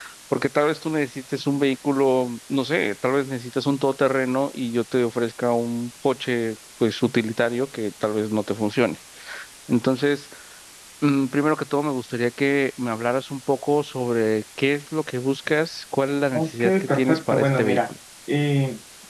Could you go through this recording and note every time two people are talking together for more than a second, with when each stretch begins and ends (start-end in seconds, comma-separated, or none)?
16.3-17.8